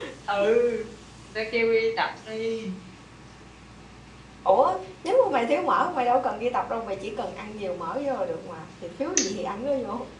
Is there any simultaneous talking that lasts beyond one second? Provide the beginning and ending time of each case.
none

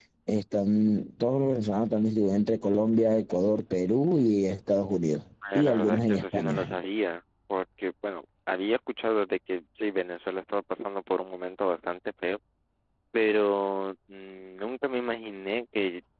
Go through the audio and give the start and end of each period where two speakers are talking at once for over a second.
5.5-6.8

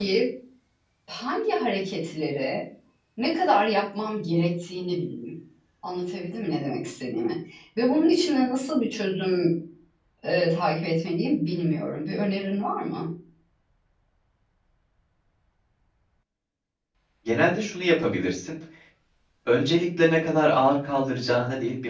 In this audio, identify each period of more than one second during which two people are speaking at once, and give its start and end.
none

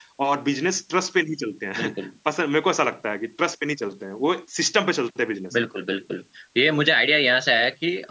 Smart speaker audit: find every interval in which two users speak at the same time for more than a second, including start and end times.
none

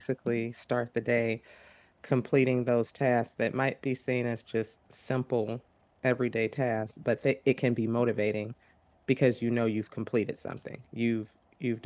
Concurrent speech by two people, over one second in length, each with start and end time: none

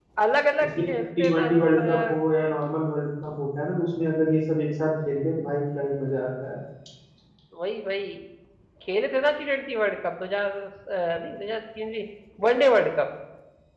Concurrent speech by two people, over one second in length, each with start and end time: 0.6-2.1

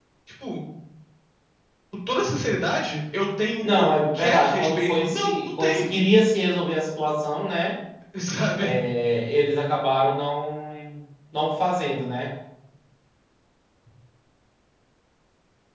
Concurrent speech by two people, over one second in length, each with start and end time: 3.6-5.9

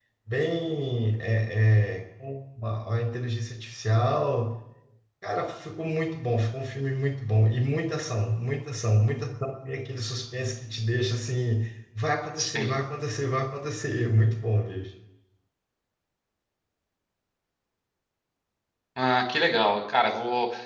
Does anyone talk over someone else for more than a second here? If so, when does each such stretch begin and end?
none

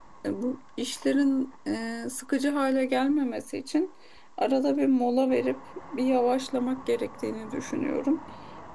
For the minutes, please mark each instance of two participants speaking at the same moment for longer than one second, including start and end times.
none

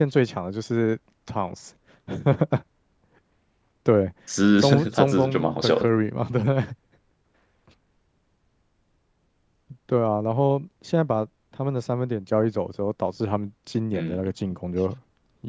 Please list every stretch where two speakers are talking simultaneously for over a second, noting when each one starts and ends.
4.6-5.9

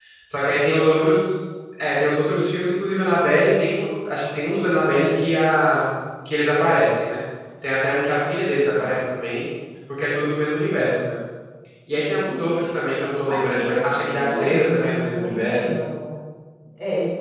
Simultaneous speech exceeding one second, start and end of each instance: 13.3-15.8

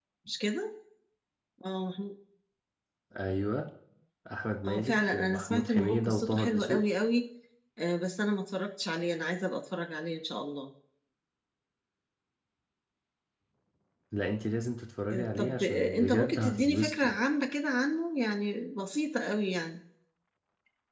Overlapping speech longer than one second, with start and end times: 4.7-6.8, 15.1-17.1

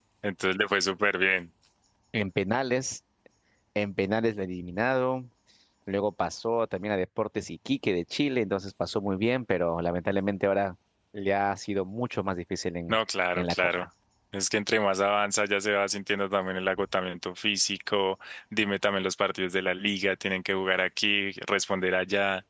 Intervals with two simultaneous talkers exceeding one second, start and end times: none

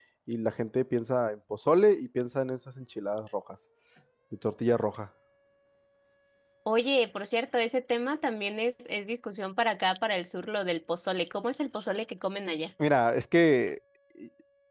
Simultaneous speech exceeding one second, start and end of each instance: none

